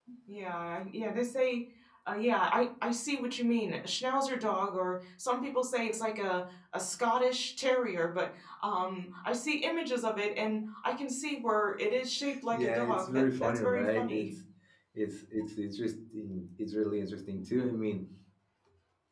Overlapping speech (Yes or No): Yes